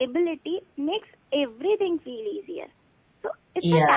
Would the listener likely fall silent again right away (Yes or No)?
Yes